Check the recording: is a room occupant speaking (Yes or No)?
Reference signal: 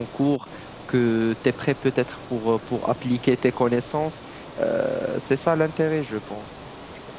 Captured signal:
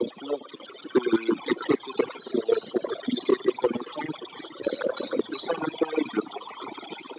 No